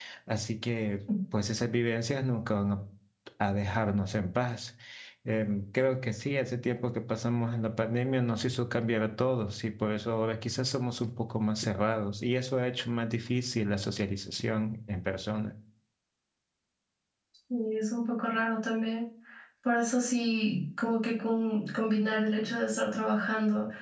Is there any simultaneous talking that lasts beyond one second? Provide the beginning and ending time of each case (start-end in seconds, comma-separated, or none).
none